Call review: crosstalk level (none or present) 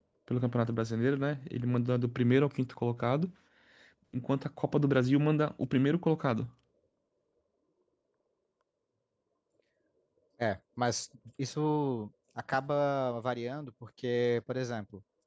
none